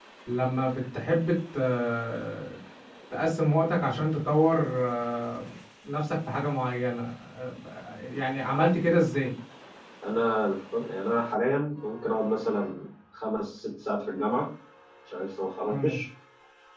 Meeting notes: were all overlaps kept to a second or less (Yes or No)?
Yes